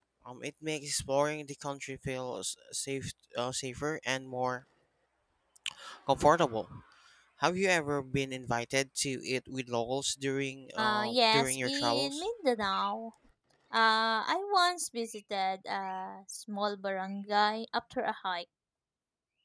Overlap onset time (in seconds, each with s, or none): 10.8 s